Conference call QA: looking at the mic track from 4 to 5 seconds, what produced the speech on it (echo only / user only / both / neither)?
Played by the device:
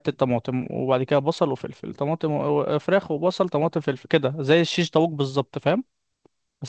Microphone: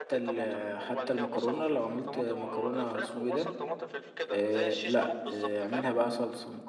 both